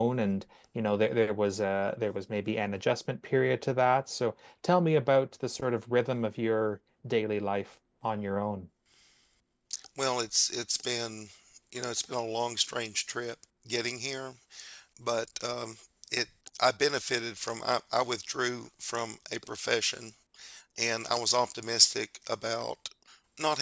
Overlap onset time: none

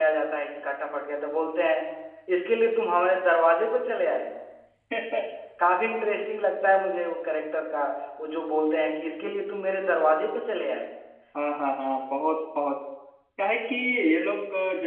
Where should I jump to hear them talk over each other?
none

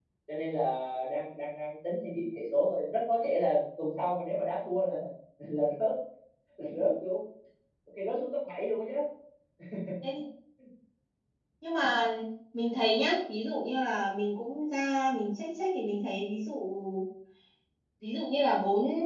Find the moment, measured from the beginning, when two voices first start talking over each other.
none

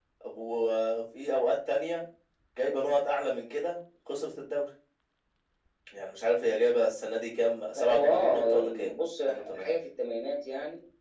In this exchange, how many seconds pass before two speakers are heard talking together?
8 s

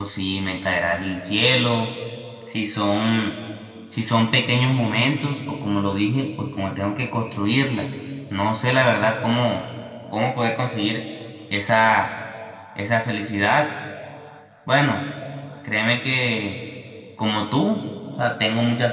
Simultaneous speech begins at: none

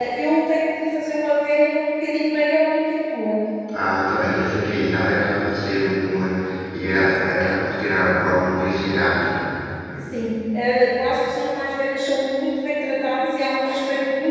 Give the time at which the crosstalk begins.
none

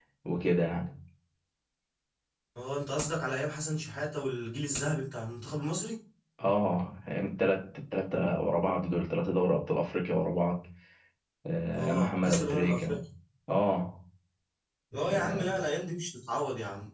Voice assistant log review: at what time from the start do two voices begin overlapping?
12 s

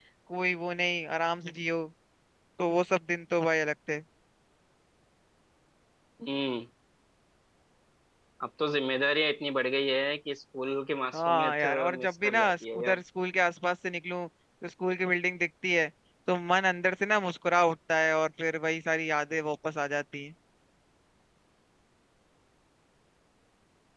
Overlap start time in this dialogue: 11 s

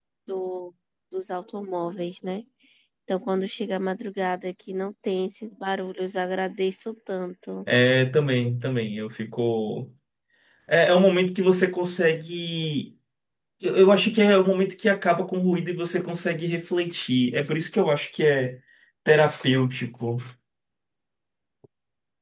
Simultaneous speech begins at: none

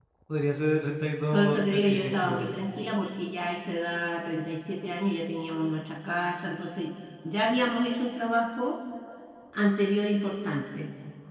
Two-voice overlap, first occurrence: 1 s

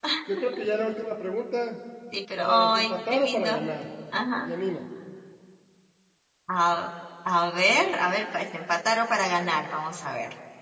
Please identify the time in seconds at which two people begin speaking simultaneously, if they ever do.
2 s

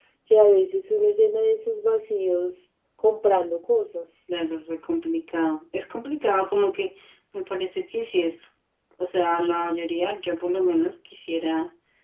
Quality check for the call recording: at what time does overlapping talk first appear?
none

